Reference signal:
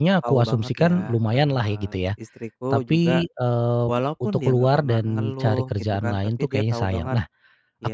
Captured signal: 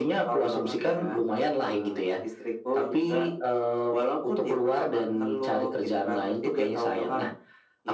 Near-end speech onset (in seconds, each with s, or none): none